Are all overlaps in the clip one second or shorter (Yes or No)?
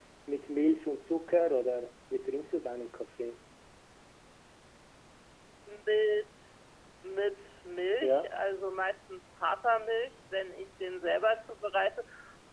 Yes